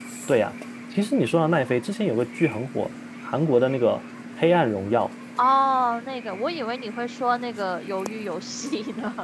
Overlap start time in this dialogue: none

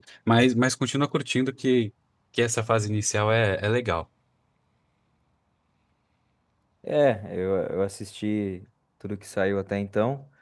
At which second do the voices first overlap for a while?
none

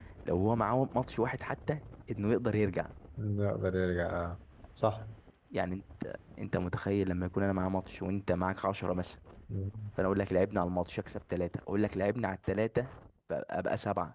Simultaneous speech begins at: none

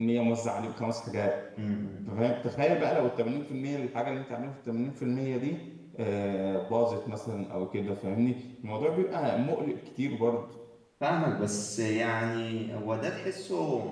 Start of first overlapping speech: none

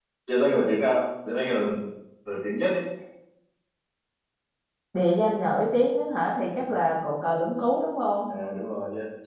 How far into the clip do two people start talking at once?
none

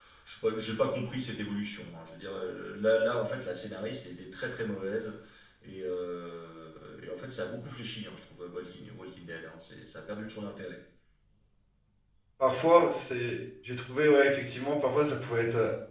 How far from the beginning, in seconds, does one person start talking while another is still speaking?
none

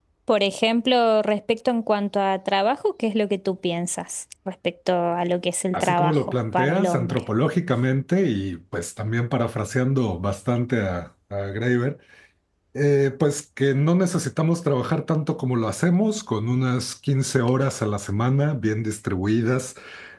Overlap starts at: 6 s

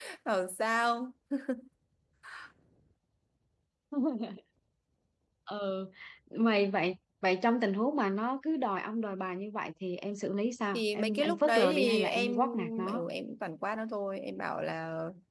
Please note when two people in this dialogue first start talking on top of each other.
11 s

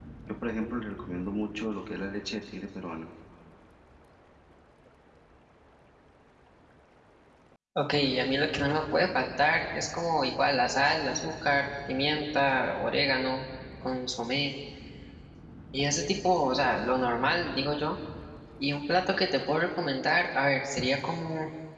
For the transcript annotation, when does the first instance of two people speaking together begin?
none

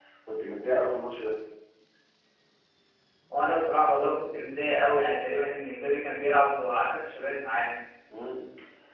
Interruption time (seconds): none

